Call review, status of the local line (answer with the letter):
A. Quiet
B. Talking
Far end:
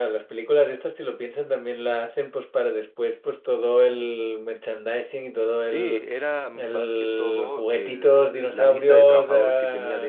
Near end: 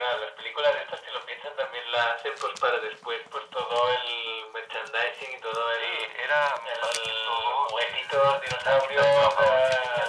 A